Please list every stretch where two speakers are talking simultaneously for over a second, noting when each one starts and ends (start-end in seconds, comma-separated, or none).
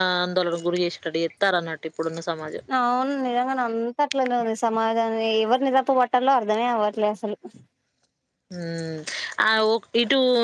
none